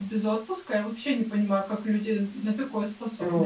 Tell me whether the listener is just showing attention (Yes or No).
No